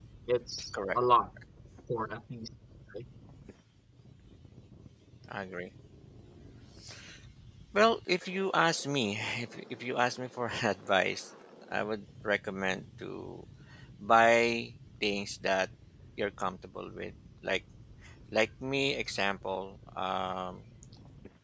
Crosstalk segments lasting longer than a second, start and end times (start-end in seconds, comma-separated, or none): none